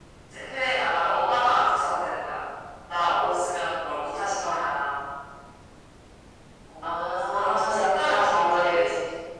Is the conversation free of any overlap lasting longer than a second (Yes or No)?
No